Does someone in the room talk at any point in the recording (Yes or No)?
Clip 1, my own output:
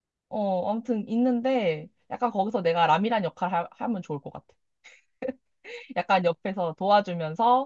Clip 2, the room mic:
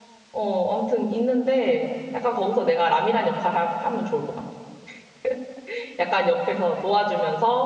No